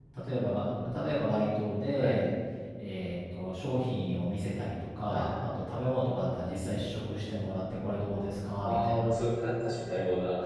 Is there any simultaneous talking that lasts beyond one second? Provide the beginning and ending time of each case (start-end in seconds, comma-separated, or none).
none